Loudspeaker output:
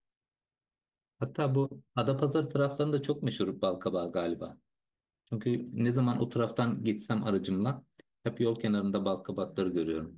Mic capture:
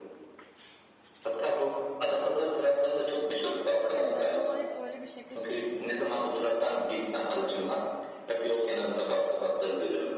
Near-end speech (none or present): present